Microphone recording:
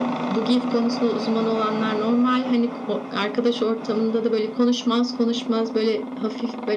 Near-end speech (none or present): none